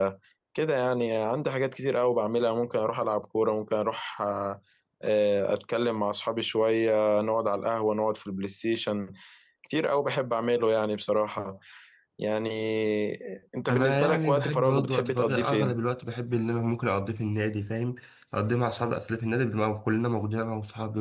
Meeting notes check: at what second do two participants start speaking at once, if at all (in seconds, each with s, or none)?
13.7 s